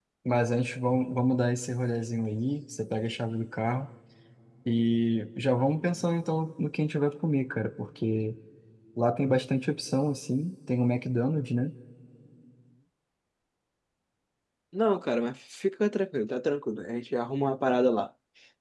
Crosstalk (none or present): none